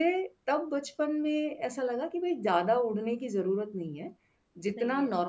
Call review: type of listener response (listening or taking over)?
listening